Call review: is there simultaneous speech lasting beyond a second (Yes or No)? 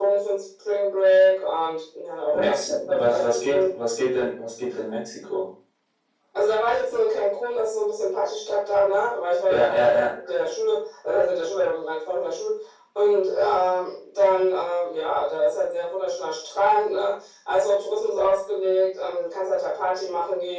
Yes